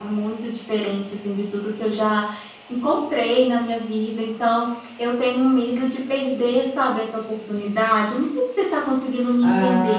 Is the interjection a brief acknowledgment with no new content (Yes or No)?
No